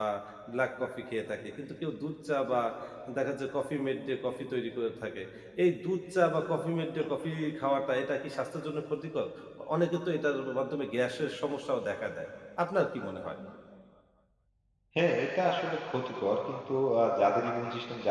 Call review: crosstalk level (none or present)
none